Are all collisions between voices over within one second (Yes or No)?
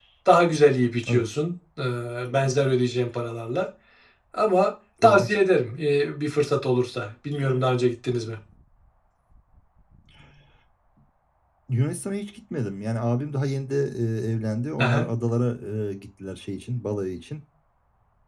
Yes